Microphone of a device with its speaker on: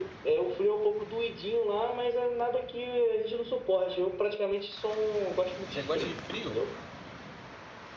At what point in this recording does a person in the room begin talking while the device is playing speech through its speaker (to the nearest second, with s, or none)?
6 s